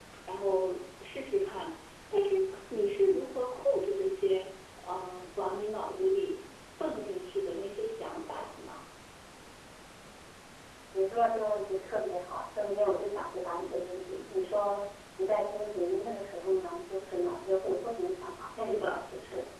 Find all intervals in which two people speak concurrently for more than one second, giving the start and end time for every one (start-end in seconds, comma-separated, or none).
none